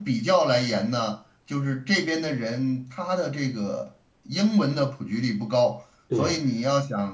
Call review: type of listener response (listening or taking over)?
listening